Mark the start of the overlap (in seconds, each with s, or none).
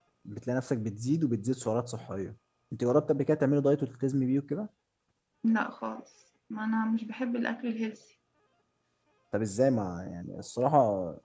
none